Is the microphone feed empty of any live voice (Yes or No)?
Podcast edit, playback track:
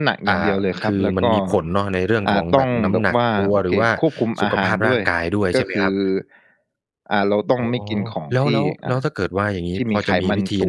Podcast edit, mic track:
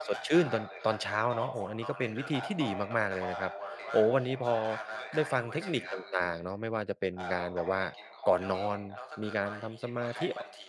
No